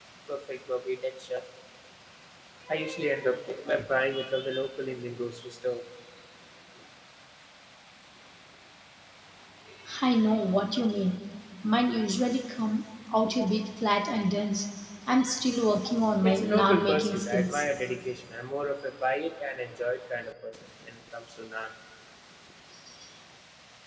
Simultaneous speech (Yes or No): Yes